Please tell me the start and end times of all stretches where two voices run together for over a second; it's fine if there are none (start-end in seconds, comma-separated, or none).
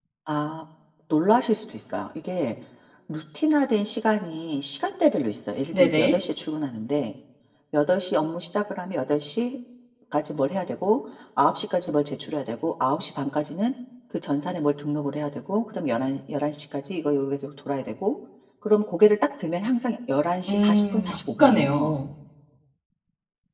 20.5-21.9